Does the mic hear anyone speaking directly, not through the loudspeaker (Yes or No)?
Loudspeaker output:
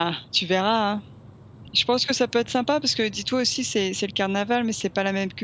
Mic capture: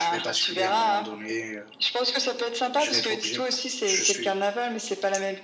Yes